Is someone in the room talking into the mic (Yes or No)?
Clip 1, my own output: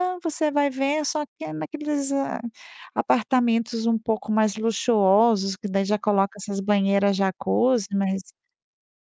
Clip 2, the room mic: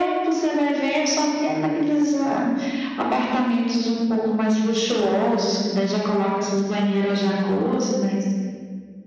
No